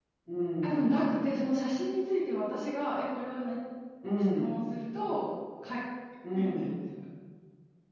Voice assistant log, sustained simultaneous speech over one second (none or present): none